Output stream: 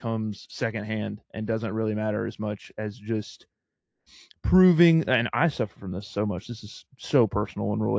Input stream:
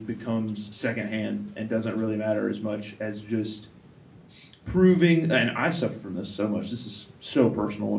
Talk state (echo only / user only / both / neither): echo only